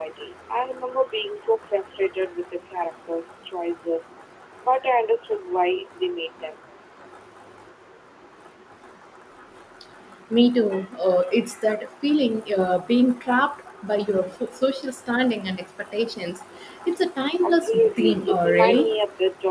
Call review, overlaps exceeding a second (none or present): present